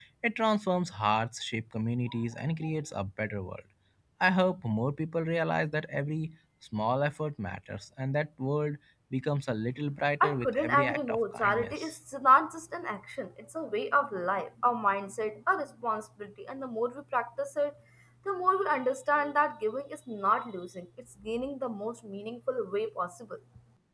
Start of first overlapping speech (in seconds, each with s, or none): 10.2 s